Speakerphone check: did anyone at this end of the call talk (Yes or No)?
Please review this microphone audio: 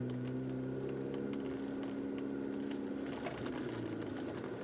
No